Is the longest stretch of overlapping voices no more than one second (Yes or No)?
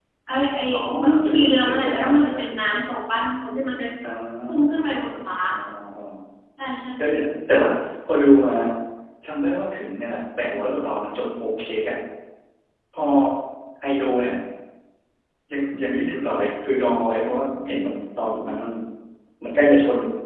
No